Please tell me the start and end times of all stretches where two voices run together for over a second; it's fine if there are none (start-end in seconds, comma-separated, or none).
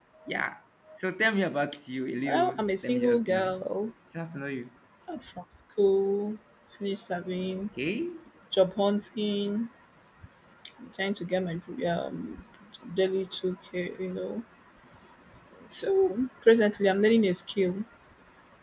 2.3-3.5